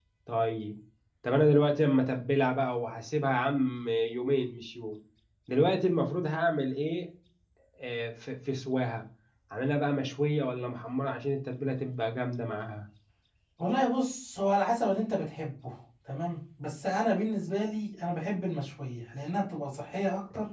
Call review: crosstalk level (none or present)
none